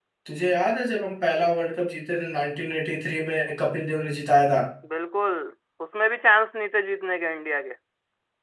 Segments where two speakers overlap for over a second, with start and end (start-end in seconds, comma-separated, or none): none